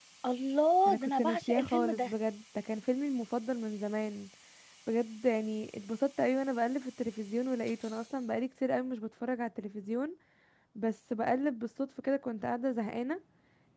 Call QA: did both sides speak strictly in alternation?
No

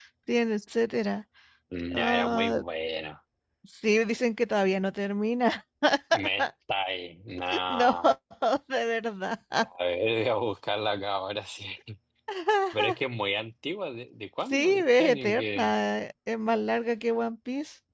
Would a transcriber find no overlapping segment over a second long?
No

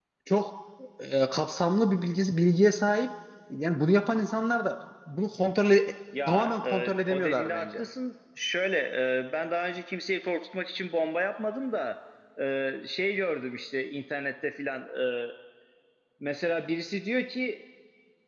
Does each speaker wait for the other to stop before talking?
No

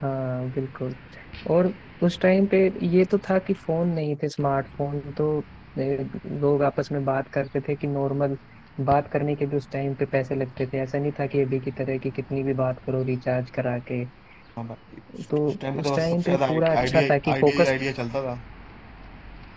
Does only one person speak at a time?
No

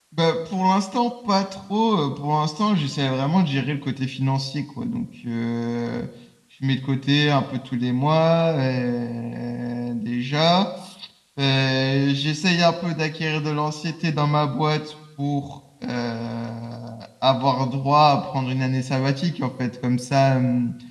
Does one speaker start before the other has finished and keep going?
No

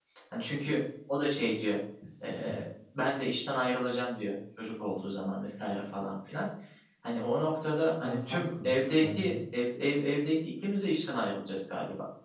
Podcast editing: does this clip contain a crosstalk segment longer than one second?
Yes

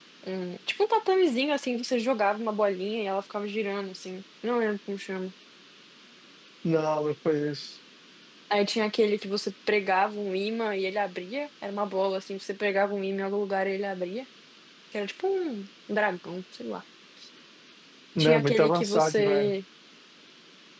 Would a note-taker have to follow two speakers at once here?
Yes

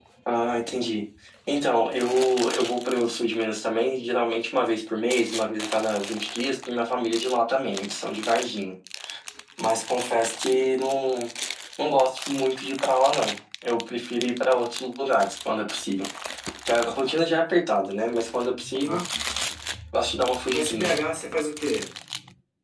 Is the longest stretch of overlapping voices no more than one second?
Yes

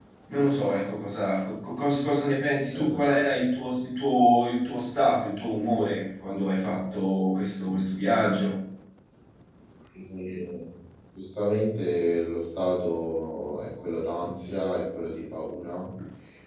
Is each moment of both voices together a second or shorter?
Yes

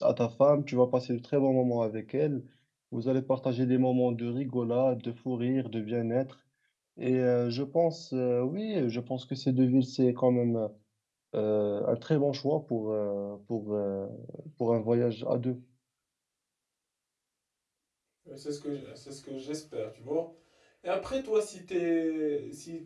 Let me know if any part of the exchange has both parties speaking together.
No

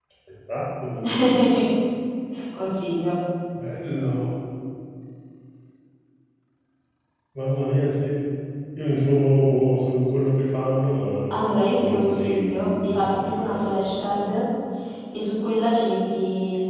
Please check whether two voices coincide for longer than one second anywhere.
Yes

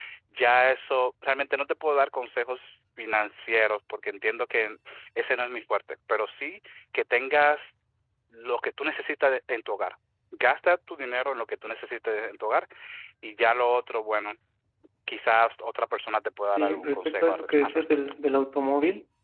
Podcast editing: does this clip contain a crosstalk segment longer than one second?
Yes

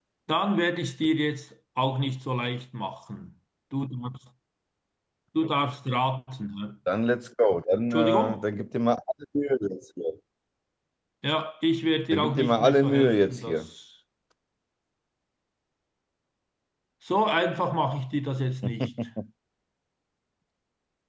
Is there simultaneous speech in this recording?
Yes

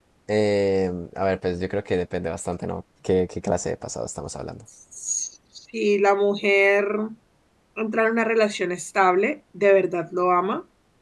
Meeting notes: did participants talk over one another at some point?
No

